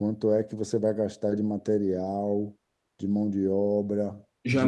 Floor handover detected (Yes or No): Yes